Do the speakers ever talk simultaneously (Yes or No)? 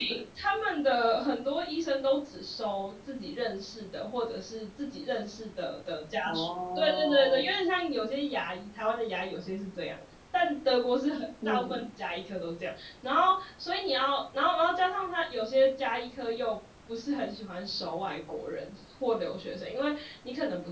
Yes